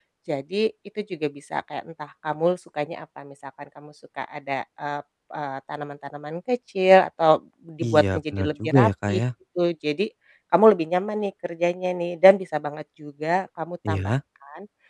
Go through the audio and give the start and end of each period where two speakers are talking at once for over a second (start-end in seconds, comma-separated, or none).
7.9-9.2